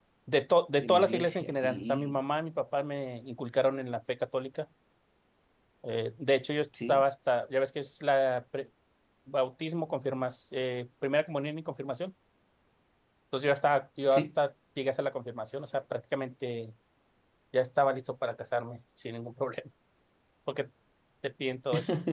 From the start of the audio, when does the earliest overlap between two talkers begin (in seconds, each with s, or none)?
0.8 s